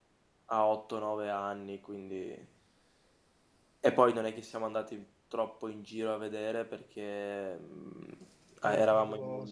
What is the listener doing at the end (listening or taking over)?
listening